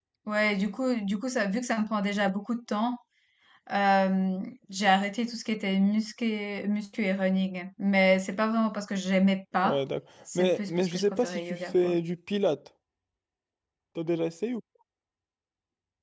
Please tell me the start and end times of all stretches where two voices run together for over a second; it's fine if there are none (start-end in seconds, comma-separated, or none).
10.3-11.9